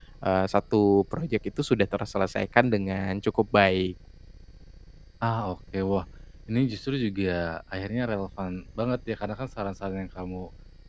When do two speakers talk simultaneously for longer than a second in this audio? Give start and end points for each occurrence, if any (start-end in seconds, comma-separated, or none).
none